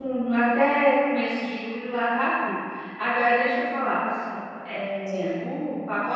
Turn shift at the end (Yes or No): No